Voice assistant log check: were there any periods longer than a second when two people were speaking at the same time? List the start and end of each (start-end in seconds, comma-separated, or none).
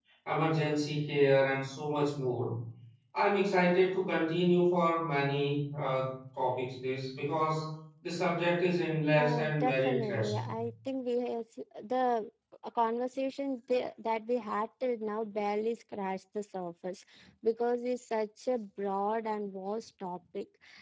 9.2-10.5